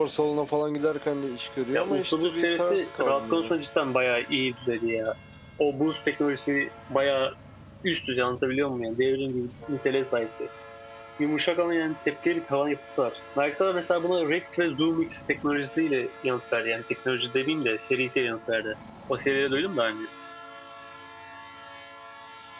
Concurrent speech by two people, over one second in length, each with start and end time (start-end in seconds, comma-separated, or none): 1.7-3.6